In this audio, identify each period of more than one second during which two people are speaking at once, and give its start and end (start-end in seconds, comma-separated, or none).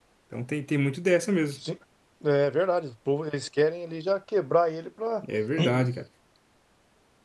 none